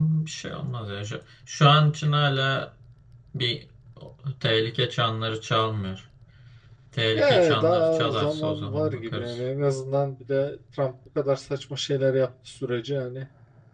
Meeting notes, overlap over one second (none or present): present